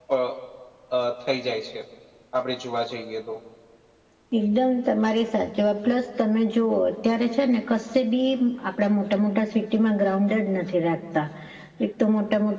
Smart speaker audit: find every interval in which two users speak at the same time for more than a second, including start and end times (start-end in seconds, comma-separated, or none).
none